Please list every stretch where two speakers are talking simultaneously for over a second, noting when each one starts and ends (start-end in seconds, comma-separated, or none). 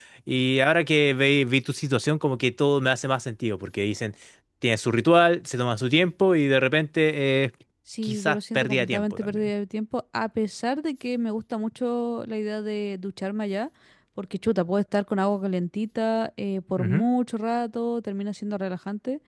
8.0-9.5